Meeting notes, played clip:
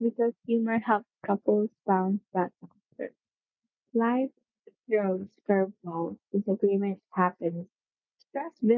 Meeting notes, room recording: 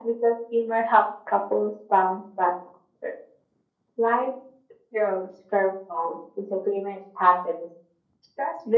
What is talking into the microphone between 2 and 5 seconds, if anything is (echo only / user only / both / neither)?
echo only